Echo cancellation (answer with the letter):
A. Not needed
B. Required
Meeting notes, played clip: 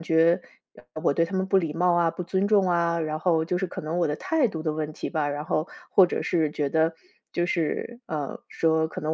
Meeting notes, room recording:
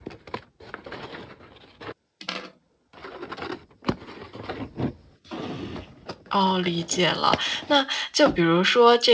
A